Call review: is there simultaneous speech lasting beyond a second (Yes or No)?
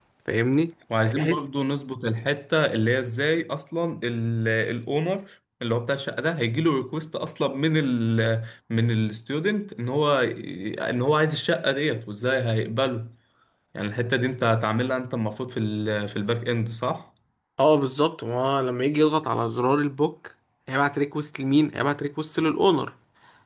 No